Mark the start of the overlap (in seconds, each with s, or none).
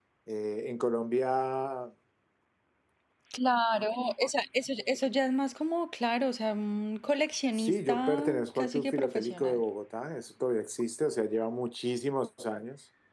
7.6 s